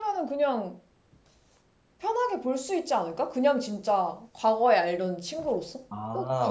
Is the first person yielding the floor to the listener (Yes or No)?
Yes